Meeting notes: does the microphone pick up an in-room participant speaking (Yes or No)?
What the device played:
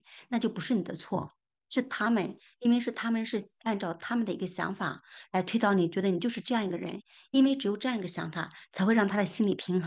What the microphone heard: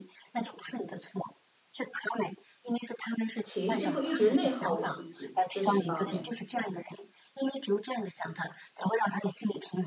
Yes